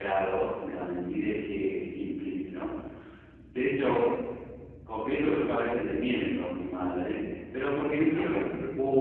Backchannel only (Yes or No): Yes